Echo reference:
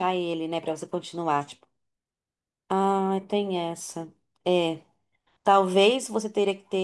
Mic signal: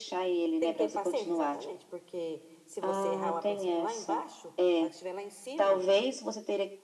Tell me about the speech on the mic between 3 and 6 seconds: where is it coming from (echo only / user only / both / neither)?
both